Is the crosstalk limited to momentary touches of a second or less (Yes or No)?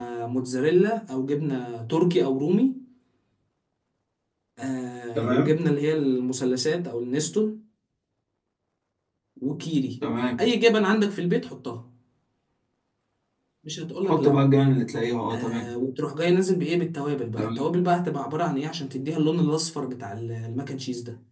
Yes